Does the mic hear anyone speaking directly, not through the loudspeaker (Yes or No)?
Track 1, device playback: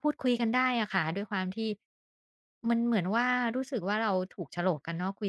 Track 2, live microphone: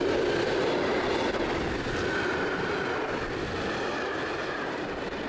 No